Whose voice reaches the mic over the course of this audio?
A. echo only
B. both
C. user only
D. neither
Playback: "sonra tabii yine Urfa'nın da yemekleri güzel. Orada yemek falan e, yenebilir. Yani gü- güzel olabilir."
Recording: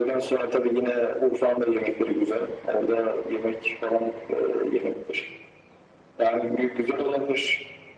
A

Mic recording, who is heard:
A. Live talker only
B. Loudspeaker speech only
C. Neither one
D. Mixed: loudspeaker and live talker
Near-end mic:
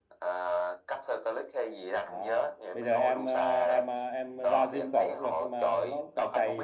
D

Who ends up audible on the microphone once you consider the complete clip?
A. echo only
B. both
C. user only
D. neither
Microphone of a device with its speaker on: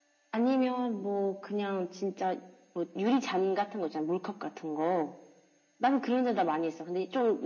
A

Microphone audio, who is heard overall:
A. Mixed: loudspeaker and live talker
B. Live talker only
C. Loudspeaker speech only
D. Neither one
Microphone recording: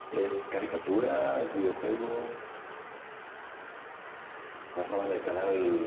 C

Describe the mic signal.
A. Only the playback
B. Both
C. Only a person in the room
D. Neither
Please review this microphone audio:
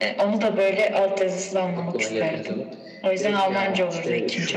B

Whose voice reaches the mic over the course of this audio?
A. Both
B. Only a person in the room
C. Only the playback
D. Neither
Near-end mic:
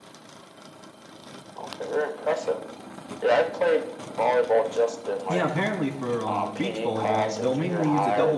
A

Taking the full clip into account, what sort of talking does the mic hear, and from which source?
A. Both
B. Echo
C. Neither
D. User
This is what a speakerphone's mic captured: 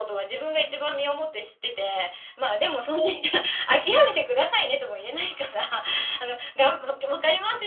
B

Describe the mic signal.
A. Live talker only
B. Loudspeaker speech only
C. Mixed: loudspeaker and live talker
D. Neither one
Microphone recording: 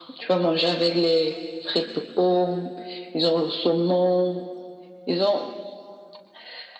B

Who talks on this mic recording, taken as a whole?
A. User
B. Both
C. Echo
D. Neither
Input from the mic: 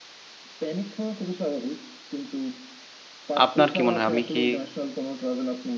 B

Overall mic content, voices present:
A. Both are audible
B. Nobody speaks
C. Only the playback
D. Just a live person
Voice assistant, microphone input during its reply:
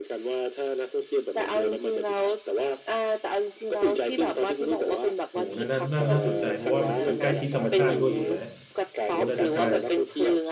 A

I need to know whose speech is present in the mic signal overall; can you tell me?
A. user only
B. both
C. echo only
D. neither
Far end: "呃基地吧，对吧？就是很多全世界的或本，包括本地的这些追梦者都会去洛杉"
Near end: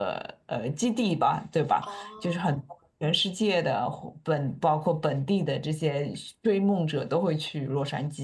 B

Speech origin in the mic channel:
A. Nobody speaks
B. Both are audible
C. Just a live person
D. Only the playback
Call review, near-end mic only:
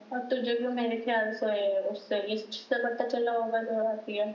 D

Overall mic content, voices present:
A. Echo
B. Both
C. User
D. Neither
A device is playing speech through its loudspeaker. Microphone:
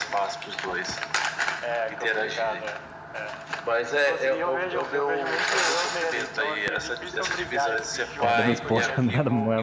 B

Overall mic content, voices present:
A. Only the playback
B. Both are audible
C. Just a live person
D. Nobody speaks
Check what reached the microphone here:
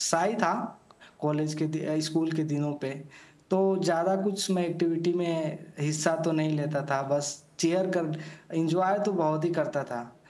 A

